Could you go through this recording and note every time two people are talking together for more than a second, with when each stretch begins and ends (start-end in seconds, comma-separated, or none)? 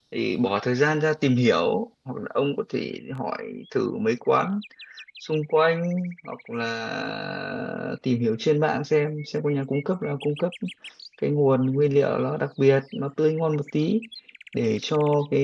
none